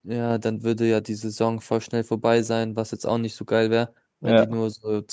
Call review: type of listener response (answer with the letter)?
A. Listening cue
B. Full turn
A